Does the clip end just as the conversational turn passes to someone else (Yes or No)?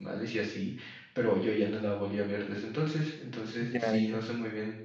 No